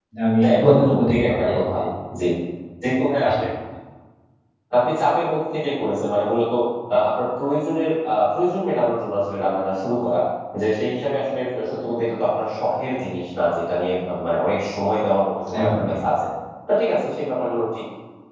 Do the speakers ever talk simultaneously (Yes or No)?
Yes